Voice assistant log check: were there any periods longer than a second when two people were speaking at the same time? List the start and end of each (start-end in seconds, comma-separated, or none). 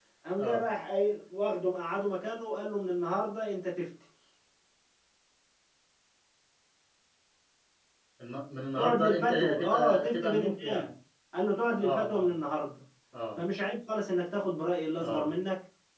8.8-10.9